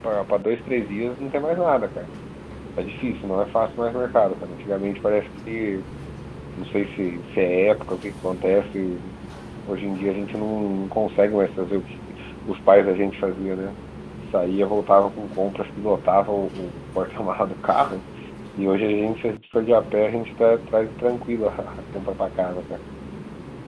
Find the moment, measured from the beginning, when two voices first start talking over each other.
none

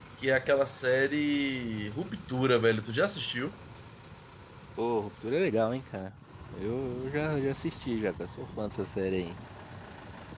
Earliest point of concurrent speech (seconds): none

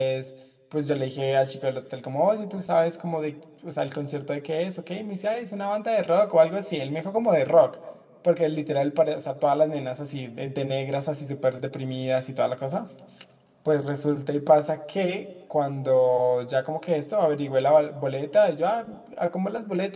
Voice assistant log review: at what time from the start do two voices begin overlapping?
none

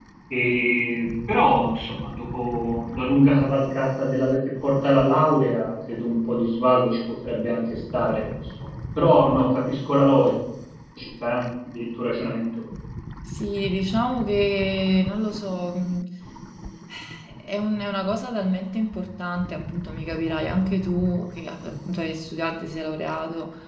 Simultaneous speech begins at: none

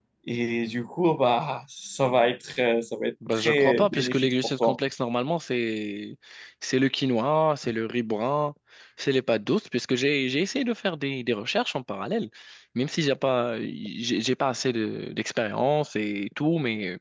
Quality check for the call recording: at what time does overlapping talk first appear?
3 s

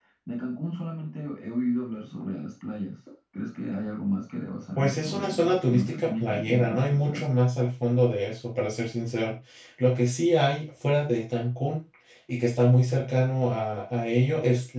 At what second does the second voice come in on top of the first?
5 s

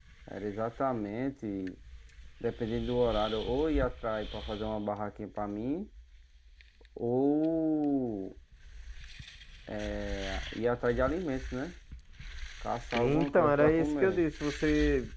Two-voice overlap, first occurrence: 13 s

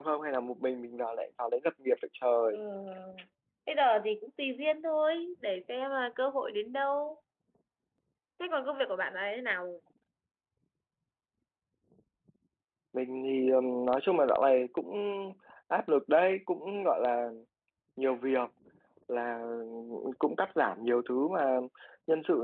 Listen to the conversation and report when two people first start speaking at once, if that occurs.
none

